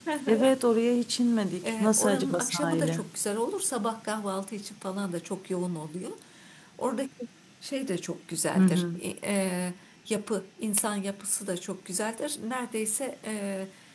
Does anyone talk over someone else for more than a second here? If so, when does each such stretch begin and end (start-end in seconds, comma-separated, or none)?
1.6-3.0